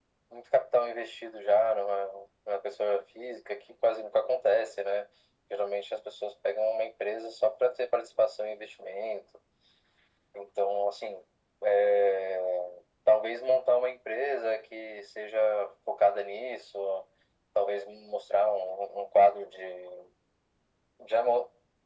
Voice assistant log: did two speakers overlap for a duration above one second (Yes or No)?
No